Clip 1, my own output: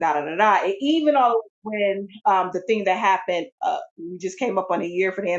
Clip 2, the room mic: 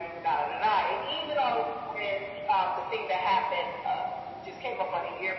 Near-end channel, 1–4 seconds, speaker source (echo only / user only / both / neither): echo only